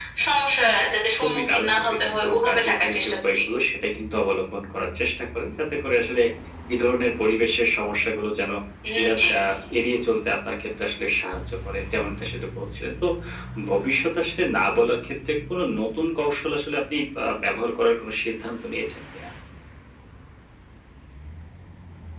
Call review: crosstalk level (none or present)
present